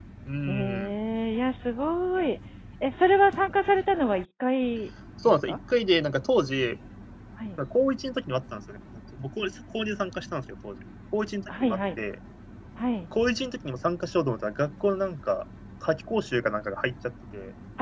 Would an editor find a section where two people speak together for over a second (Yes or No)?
No